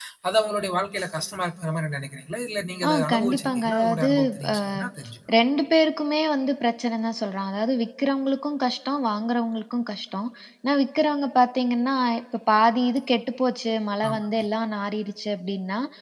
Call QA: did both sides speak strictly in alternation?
No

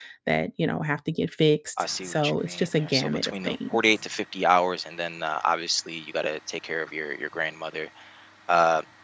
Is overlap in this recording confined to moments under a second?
No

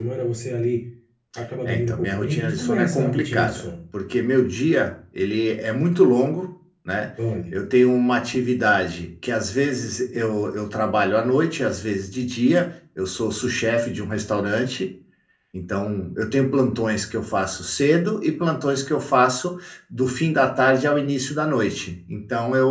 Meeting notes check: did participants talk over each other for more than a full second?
Yes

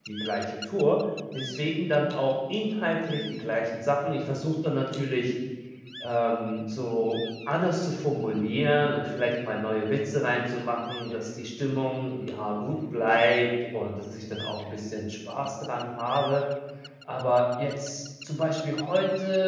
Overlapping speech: No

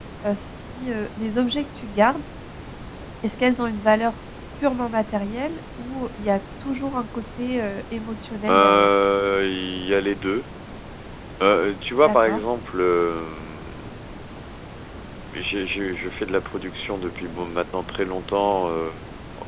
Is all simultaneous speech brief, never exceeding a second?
Yes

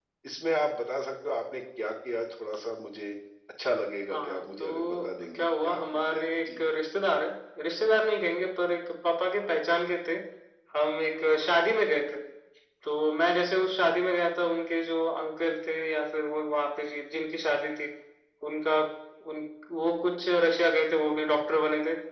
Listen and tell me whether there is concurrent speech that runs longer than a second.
Yes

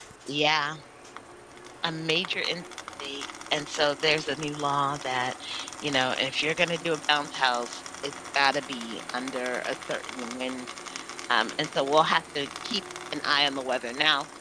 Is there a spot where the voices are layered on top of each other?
No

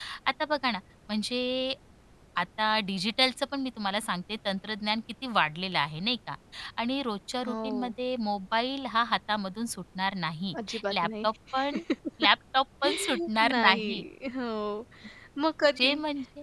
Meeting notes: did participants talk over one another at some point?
Yes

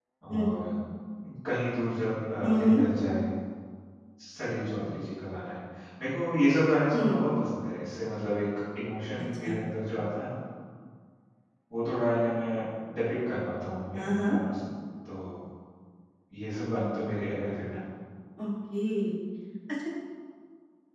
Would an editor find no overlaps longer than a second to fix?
Yes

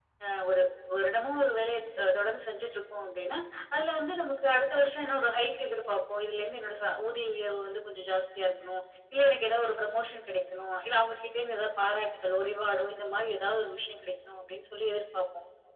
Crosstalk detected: No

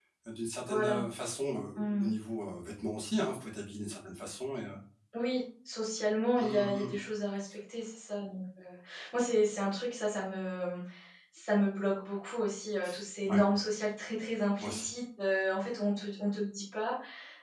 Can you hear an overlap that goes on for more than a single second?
No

